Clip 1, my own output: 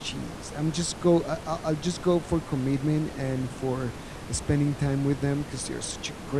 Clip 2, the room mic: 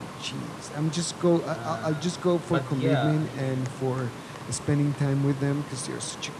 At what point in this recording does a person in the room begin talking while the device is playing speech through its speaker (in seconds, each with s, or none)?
1.5 s